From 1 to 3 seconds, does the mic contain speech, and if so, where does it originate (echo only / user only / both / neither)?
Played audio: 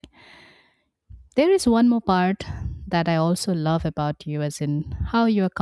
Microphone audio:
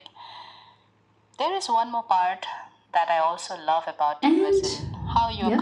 echo only